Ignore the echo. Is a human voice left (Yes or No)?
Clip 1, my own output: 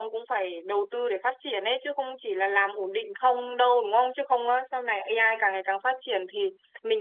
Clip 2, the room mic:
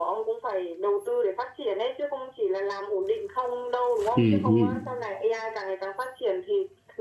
Yes